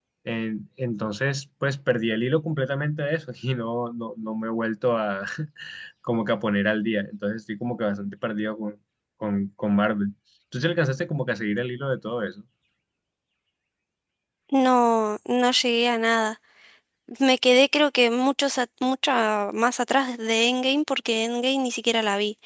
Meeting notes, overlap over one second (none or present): none